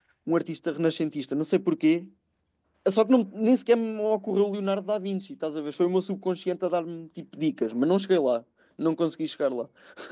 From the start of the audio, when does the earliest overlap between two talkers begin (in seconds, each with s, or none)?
none